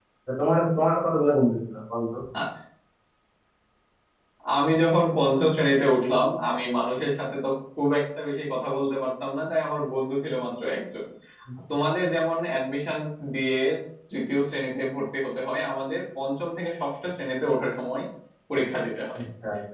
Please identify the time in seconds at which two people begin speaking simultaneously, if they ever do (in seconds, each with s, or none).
none